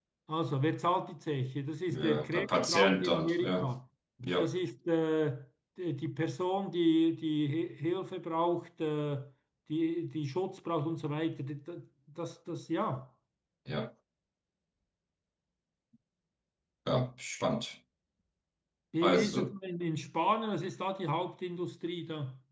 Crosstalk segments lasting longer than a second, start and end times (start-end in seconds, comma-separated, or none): 1.9-3.7